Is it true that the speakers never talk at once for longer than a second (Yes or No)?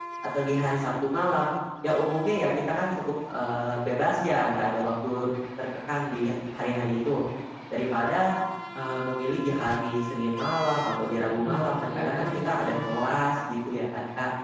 No